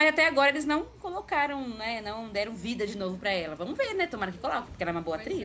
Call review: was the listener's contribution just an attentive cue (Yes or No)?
No